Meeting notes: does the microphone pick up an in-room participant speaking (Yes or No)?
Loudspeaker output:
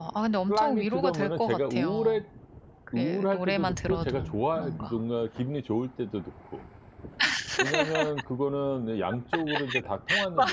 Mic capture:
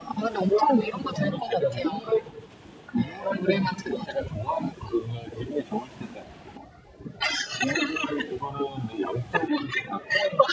No